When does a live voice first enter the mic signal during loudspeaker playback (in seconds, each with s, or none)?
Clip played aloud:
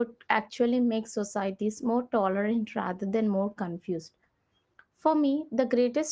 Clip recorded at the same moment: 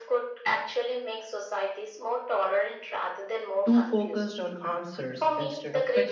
3.6 s